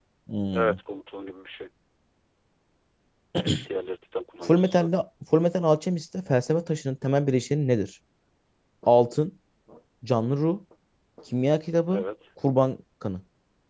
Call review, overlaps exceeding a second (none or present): none